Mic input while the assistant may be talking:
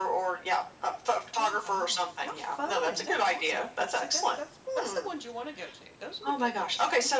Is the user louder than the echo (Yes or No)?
No